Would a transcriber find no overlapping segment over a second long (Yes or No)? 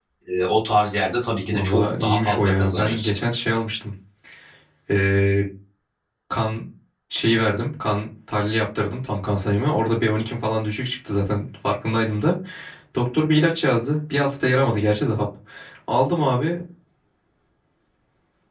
No